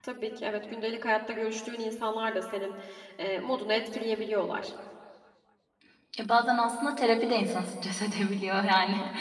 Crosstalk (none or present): none